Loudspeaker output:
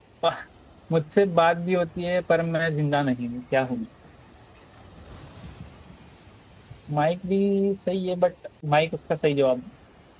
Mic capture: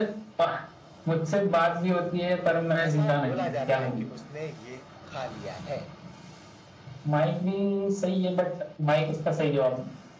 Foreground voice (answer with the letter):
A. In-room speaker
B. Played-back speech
B